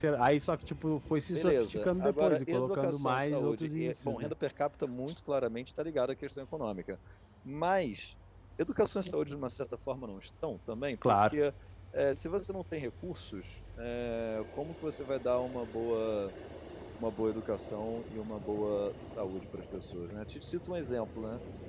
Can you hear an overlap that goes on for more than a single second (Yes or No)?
Yes